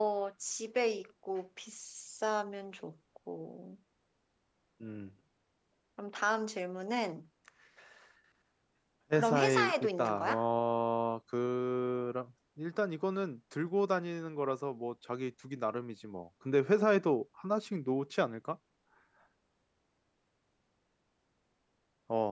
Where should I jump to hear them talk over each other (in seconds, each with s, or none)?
9.2 s